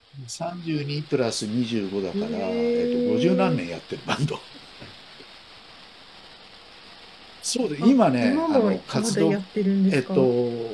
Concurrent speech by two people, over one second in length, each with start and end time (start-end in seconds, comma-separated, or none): 2.1-3.6, 7.8-9.4